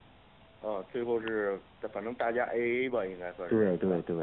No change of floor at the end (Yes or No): No